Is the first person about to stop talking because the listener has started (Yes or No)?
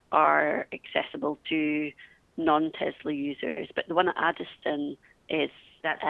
No